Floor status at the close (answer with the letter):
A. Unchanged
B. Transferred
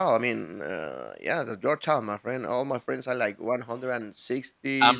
A